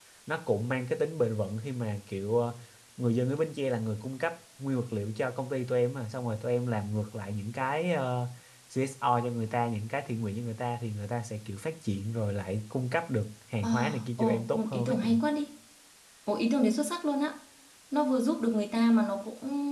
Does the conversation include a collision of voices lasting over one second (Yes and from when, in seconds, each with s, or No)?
Yes, from 13.6 s